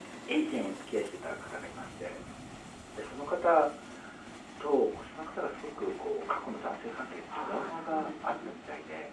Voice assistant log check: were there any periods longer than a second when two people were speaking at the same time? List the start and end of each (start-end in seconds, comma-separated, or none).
7.4-8.6